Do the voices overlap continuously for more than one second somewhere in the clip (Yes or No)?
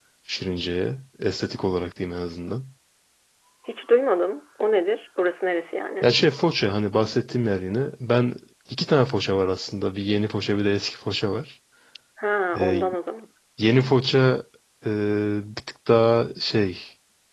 No